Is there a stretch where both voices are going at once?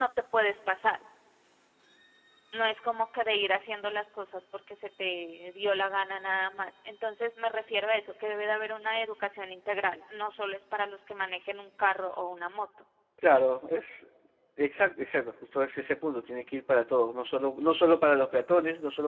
No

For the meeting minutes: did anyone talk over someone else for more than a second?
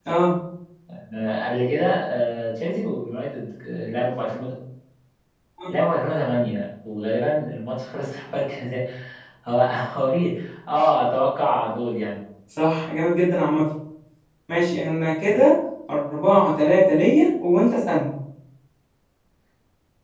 No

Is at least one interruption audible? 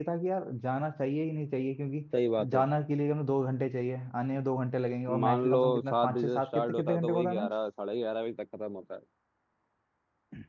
Yes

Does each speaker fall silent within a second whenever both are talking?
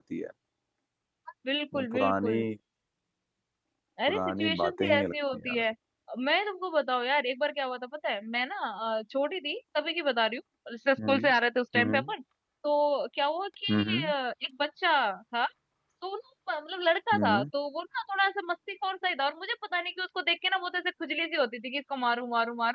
No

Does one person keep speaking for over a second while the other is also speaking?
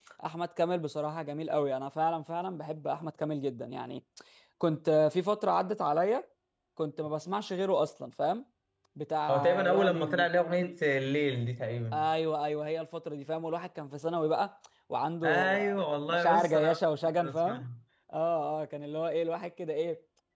Yes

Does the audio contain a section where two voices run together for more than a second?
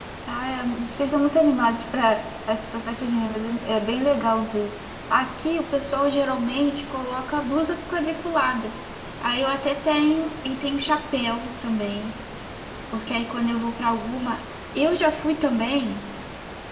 No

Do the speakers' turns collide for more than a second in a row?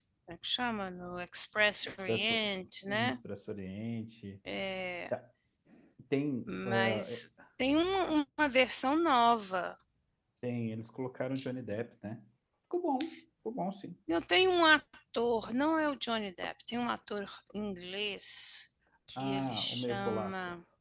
Yes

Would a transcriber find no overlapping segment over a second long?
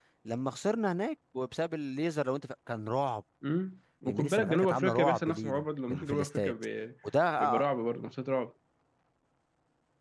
No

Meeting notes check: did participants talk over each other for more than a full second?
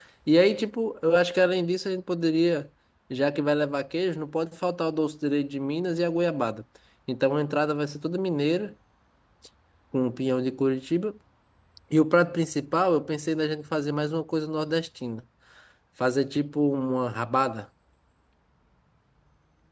No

